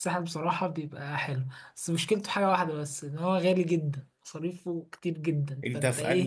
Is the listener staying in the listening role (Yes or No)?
No